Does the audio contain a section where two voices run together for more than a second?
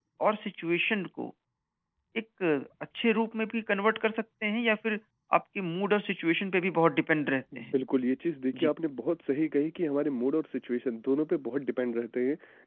No

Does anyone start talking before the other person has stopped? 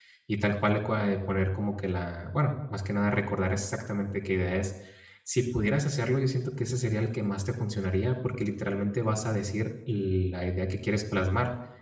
No

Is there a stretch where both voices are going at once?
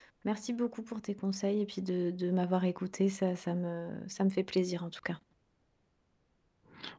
No

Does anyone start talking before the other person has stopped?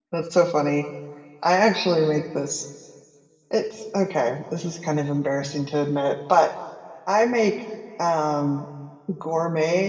No

